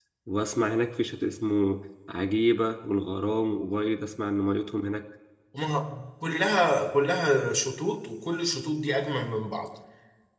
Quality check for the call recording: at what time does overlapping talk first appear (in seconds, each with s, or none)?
none